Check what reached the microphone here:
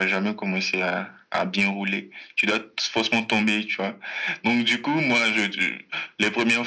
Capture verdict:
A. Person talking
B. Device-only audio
B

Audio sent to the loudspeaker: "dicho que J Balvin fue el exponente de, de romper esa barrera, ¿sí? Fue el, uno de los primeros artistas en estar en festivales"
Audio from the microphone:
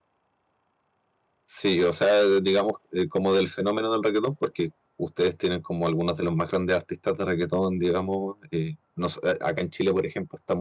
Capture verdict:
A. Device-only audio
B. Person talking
B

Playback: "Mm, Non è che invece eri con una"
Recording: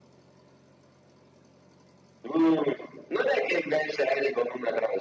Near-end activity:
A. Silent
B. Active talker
A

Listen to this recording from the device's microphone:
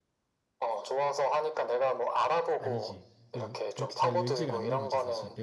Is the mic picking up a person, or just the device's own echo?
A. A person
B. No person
A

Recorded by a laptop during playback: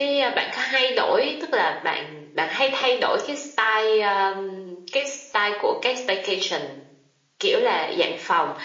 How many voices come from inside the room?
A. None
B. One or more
A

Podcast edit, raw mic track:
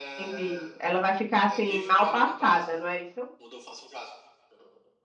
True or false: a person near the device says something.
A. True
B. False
A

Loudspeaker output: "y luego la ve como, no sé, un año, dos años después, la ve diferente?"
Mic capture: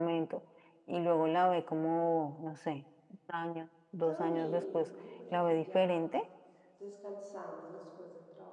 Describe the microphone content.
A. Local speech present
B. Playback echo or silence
A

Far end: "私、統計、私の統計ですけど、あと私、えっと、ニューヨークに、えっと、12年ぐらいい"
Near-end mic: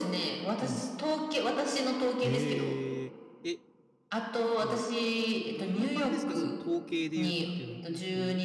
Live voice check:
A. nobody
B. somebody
B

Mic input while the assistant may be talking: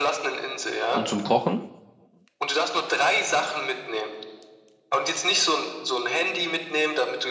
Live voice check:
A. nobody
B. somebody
B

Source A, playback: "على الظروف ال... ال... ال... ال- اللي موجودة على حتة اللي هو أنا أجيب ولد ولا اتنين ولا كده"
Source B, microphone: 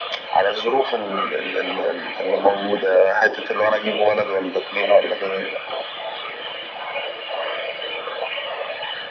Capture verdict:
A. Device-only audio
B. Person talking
A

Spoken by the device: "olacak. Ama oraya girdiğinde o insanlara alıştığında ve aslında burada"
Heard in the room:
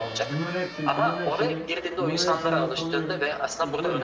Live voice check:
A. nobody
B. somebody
B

